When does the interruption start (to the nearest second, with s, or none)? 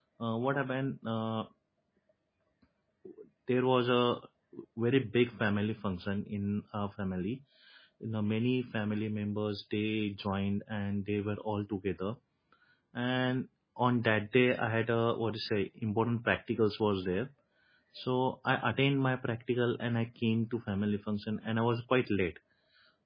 none